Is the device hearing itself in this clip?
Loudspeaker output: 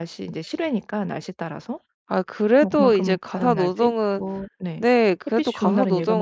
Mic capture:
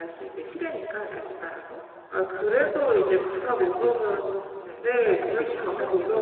Yes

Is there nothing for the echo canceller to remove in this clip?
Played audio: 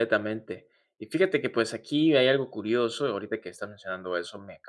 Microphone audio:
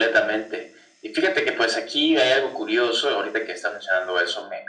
No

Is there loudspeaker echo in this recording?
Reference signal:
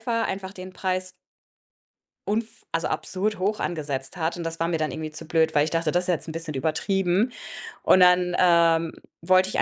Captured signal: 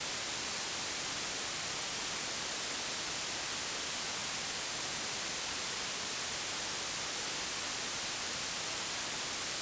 No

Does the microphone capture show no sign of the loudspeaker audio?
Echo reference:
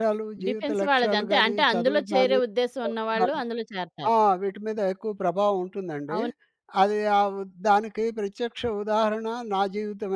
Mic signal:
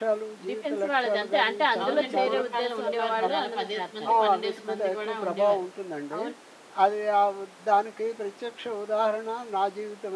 No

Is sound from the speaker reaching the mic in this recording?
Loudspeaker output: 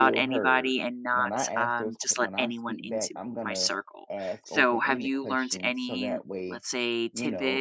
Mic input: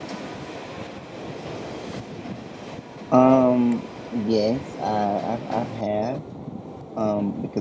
No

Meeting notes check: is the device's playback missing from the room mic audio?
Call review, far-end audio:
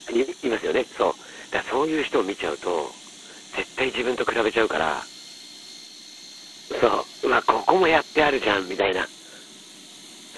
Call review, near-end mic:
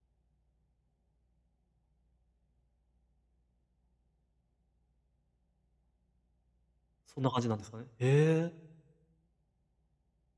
Yes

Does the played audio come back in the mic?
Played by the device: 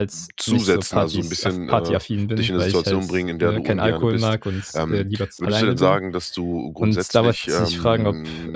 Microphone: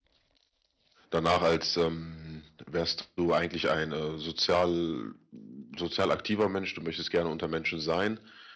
No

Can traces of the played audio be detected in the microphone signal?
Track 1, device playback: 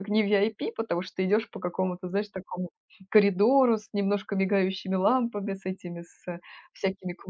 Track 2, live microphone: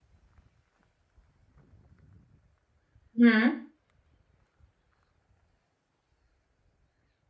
No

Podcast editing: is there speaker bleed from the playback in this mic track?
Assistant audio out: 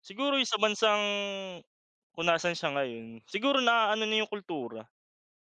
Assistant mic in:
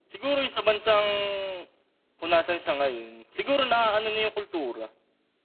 Yes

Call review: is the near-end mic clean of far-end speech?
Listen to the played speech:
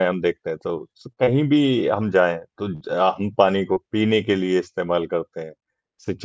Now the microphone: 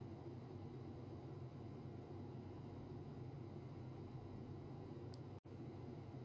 Yes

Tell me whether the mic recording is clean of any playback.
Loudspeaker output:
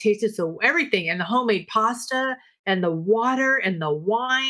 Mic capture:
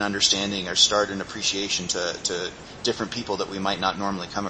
Yes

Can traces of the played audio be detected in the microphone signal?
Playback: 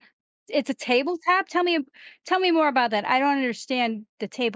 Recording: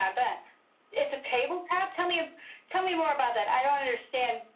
Yes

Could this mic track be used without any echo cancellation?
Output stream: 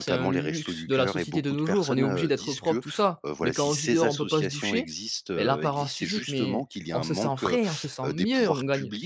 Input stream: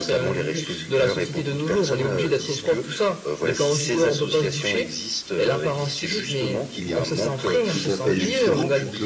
No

